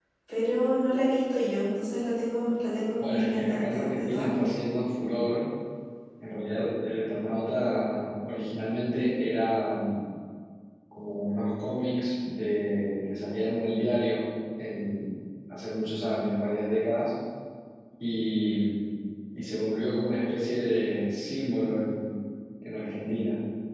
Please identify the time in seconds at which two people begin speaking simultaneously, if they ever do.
3.0 s

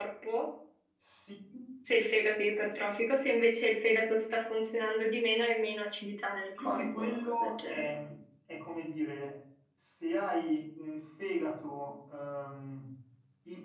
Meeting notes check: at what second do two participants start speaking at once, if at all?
6.6 s

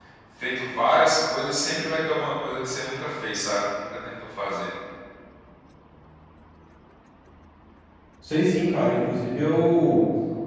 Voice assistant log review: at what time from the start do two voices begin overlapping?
none

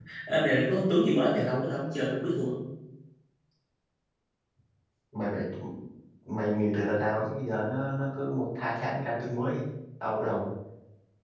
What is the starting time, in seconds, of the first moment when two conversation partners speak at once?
none

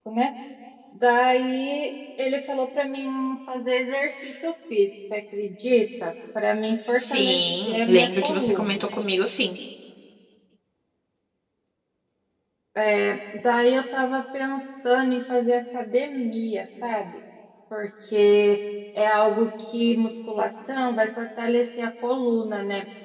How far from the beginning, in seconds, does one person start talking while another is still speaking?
6.9 s

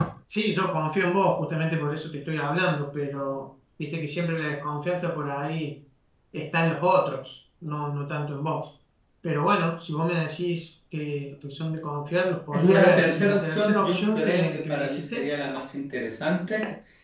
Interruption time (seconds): 12.5 s

